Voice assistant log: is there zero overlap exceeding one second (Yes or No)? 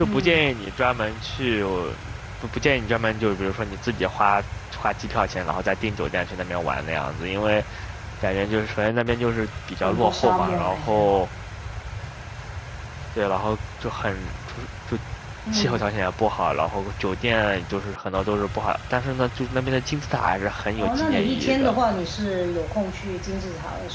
No